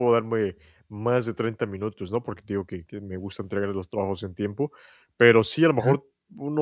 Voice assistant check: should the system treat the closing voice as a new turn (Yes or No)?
No